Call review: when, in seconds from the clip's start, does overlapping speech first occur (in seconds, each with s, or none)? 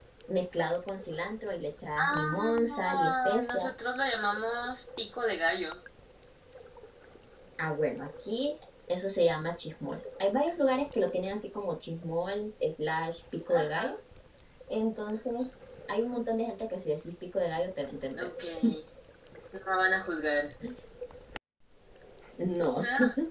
2.0 s